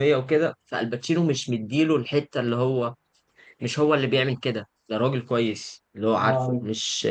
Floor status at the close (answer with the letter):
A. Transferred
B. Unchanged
B